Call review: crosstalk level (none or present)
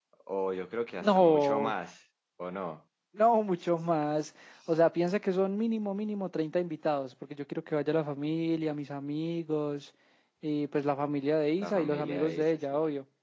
present